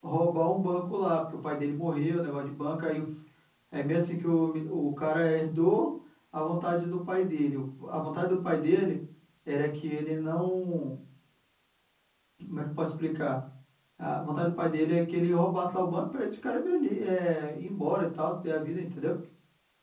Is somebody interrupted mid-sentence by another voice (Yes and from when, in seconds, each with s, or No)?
No